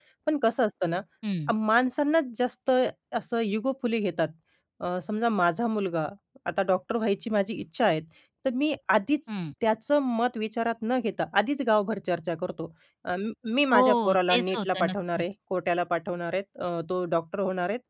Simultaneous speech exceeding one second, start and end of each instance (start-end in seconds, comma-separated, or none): 13.7-15.2